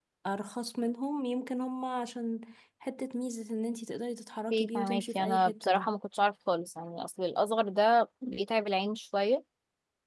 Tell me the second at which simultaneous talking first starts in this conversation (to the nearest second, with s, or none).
5 s